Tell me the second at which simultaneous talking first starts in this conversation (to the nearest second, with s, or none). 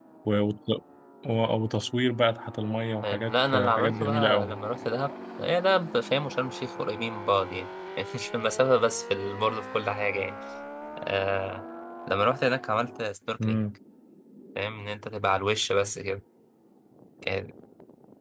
3 s